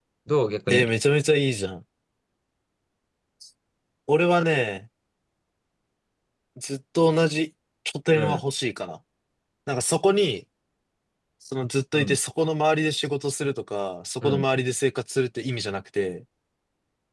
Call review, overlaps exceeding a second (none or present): none